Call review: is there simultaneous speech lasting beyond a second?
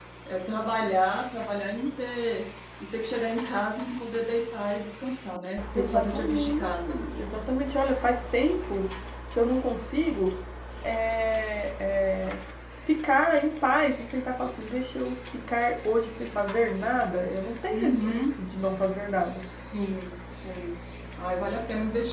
Yes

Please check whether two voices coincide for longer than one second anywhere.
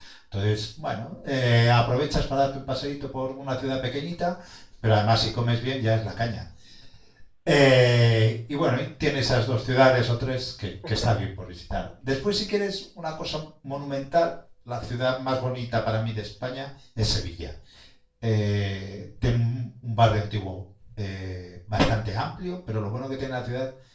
No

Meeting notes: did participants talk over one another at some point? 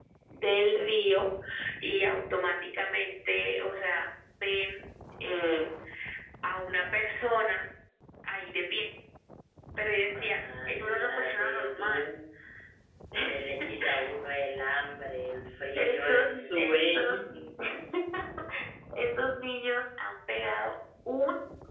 Yes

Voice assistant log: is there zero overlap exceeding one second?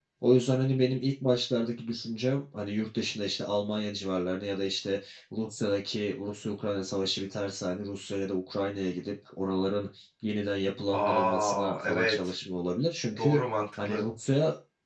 No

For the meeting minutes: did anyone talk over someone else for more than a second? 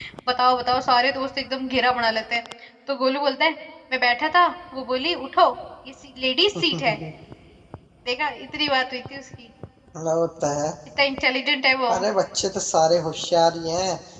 No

